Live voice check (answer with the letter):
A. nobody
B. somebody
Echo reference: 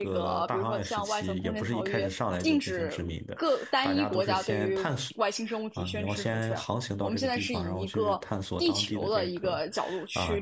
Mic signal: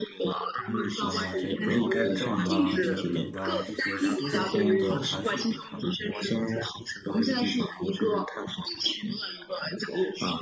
B